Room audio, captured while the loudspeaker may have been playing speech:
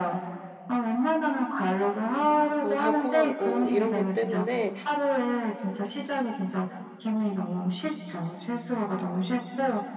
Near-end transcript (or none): 너무 달콤하고 이런 것 때문에